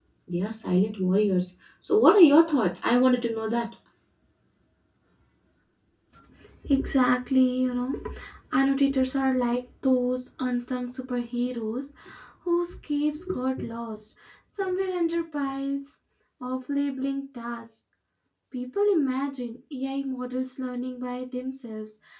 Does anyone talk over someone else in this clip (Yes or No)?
No